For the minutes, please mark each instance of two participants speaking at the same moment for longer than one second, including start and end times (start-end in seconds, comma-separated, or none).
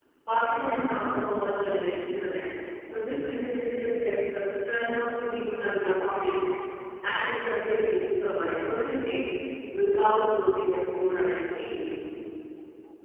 none